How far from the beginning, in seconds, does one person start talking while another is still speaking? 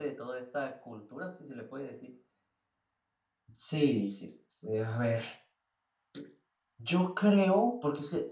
none

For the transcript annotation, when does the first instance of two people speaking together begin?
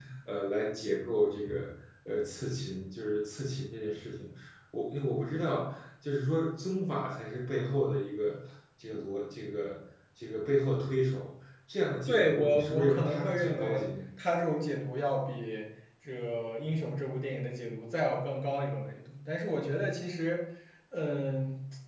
12.1 s

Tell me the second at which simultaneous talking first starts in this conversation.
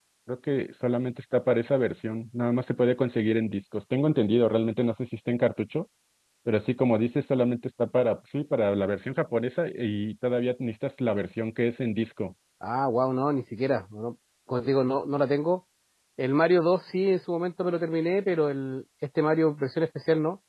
none

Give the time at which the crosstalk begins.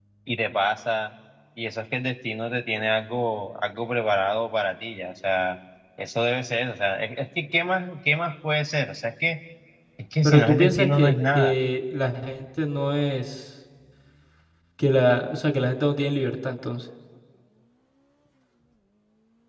10.2 s

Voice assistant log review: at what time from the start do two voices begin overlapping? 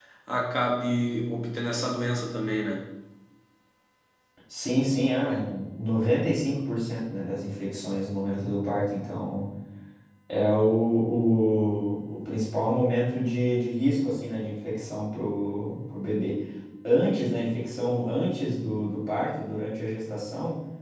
none

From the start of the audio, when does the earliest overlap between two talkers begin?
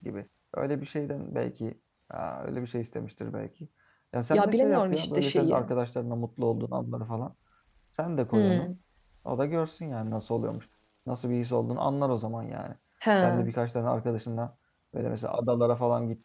4.3 s

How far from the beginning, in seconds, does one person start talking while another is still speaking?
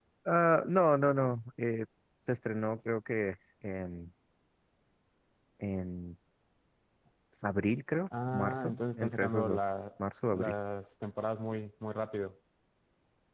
8.1 s

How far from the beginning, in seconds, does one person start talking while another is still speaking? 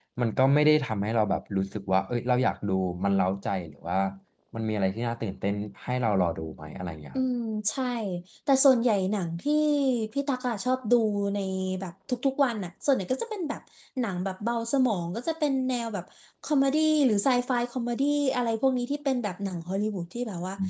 none

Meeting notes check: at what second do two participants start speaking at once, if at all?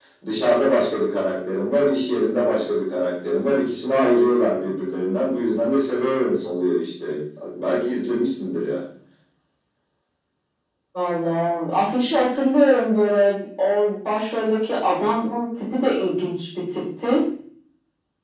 none

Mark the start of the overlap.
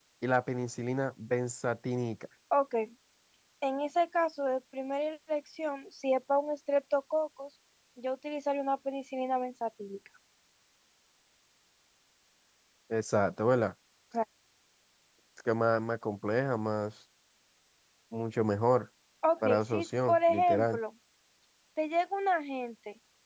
19.4 s

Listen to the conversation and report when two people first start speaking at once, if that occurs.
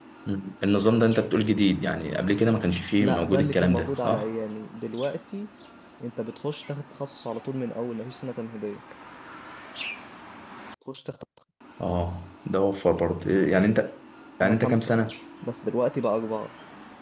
3.0 s

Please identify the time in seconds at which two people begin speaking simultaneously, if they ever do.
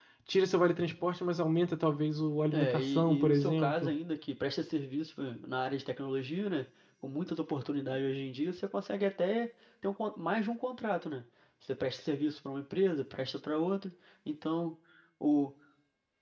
2.5 s

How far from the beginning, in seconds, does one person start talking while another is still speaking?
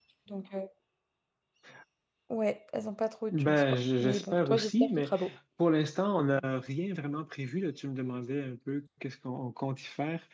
3.3 s

